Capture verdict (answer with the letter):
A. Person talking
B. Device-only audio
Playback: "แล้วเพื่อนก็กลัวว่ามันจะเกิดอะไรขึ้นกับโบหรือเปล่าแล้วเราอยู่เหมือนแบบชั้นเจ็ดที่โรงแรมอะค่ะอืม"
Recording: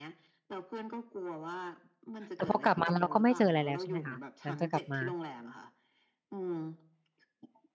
A